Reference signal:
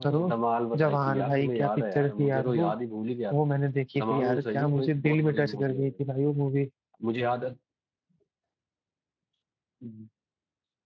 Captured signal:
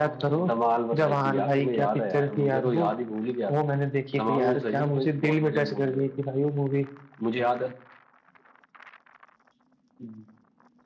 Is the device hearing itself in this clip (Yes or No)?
Yes